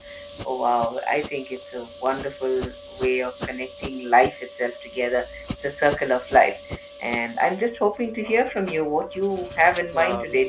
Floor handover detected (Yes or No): Yes